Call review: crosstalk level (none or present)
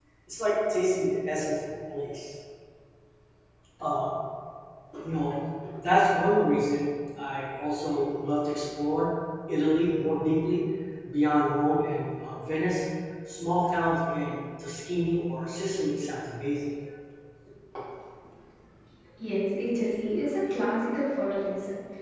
none